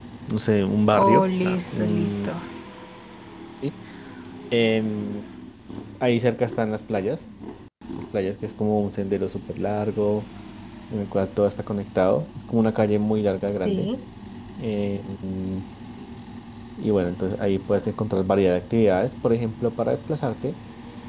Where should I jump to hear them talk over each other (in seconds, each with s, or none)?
1.0 s